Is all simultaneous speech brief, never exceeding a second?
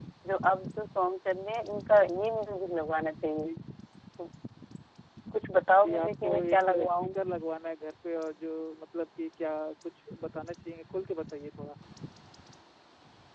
No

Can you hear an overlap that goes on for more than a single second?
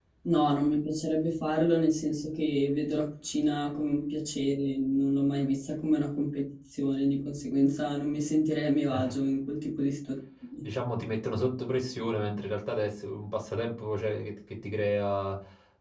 No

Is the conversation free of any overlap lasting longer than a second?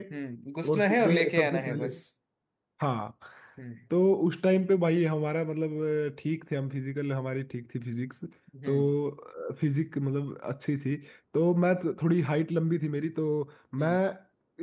No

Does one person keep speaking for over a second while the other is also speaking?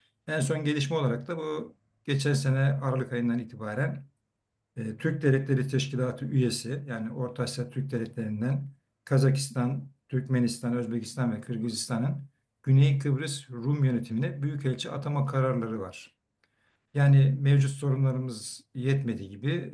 No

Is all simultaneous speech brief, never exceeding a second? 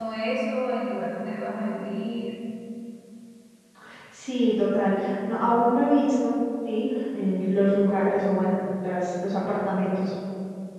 Yes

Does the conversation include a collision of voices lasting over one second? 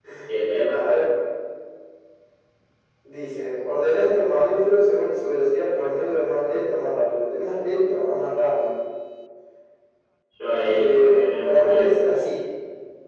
Yes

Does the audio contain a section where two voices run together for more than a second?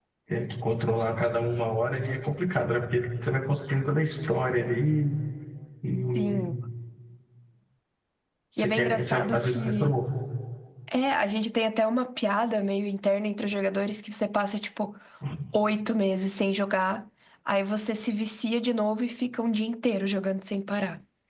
Yes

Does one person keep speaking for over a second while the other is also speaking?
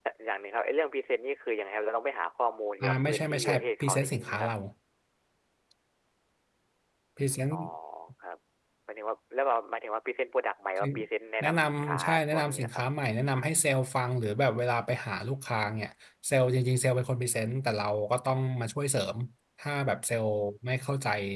Yes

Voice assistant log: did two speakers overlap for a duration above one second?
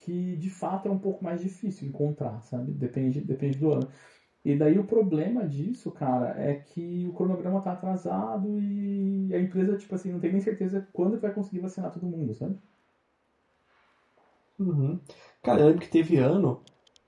No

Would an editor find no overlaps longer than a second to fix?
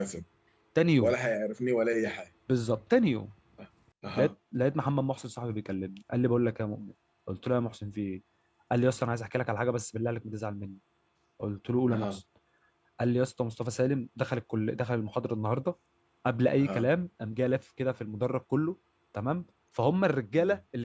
Yes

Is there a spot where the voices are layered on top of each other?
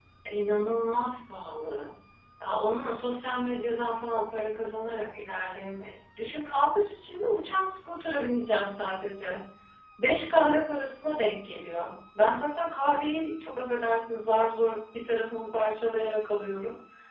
No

